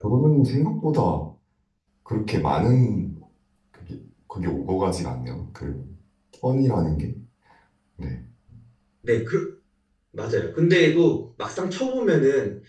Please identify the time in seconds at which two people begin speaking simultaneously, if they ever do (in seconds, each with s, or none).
none